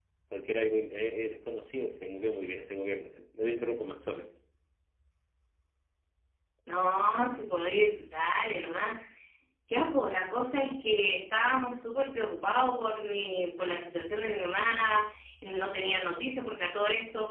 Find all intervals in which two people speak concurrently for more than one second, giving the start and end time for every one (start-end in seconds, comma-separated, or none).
none